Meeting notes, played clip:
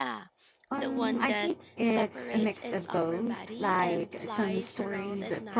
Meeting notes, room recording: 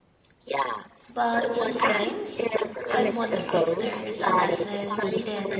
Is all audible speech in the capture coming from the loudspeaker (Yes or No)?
No